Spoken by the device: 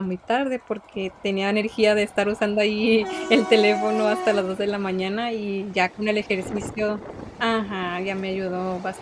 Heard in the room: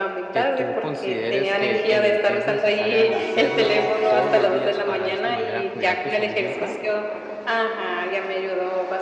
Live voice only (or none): que tú consideres que el es necesaria, el hacerlo todos los días, para, de esta manera, cuidar tu salud mental?